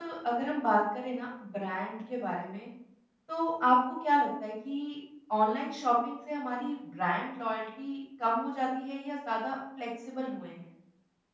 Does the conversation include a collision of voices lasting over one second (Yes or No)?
No